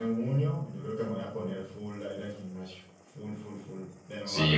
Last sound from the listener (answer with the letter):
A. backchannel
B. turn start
B